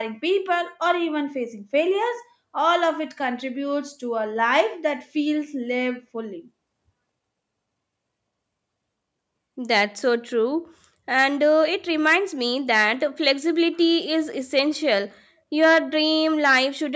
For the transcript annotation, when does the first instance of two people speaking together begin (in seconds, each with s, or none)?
none